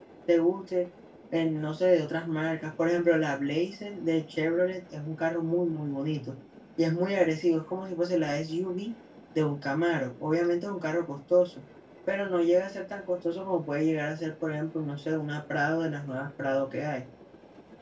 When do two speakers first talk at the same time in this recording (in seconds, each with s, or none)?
none